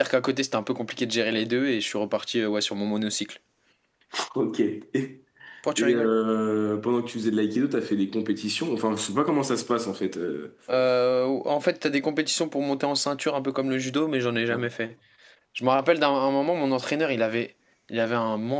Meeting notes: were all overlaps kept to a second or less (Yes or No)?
Yes